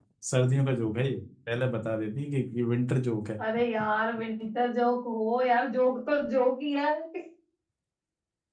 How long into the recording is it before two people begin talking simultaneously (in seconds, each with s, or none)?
none